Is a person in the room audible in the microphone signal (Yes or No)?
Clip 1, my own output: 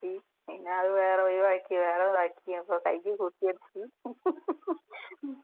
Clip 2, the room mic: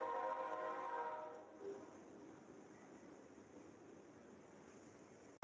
No